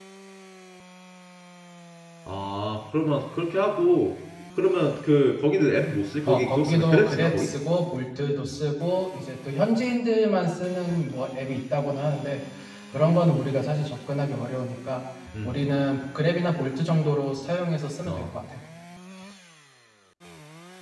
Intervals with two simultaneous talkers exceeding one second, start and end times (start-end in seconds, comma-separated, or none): 6.3-7.5